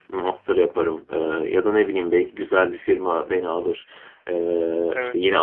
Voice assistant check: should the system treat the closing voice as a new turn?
No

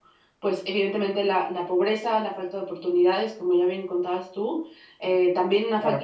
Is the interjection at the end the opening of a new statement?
No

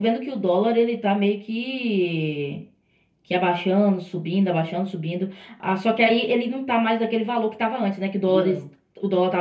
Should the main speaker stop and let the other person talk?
No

